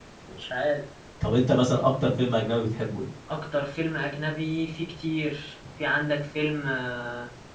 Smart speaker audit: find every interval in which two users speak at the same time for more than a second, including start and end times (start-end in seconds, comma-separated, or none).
none